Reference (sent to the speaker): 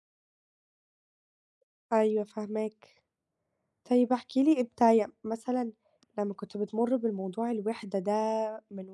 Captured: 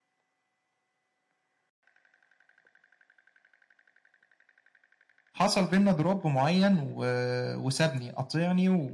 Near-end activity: present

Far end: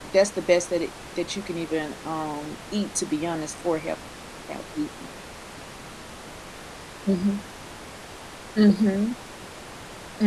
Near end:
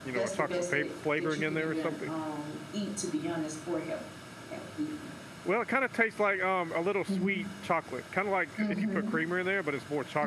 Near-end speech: present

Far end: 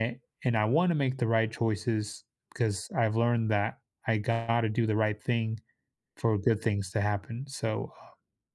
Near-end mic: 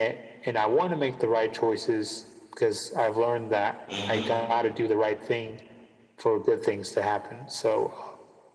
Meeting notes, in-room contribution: present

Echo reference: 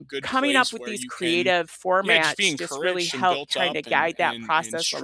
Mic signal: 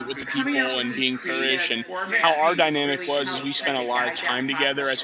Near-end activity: present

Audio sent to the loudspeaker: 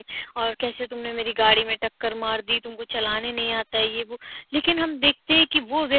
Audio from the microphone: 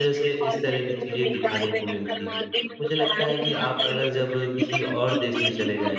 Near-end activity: present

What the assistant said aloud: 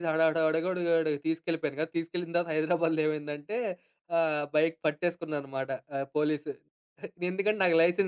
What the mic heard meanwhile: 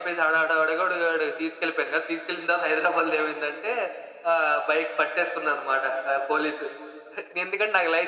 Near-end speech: none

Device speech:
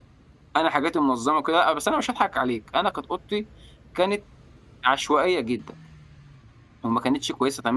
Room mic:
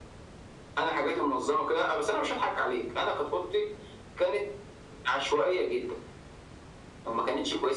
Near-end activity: none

